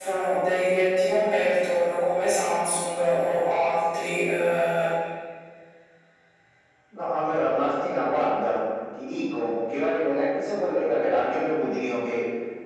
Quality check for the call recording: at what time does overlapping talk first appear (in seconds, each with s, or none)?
none